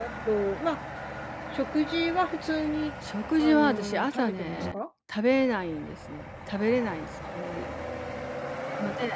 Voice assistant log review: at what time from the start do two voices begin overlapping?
3.4 s

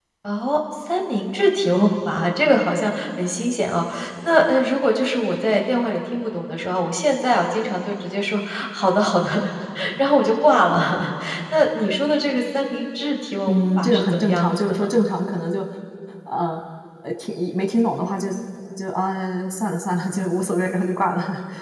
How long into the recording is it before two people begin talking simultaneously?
13.5 s

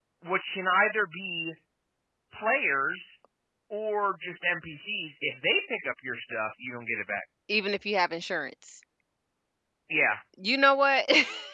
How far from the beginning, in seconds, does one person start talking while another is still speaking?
none

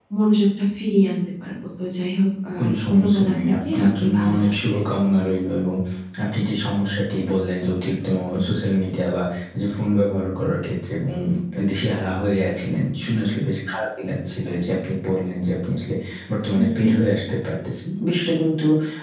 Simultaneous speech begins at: 2.6 s

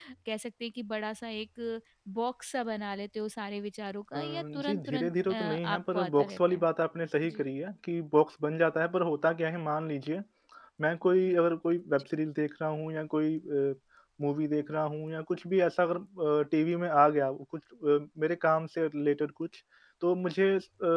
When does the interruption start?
4.1 s

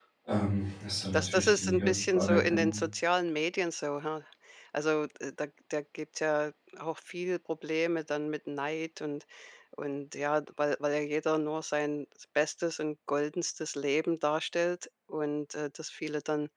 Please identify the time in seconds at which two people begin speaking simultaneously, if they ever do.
1.1 s

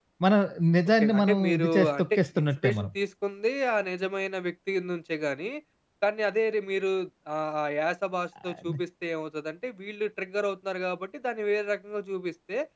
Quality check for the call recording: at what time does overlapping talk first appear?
1.0 s

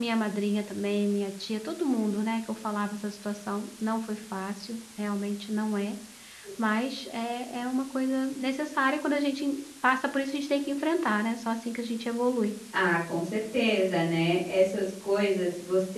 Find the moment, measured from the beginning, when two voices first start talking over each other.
none

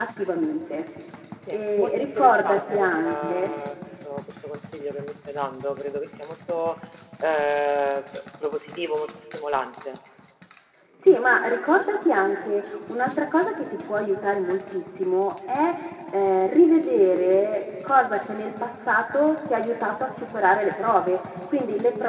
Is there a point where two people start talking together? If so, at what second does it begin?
1.5 s

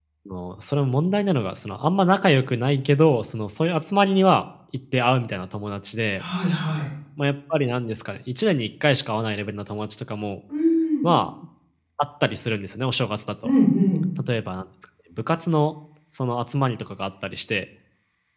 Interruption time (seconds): none

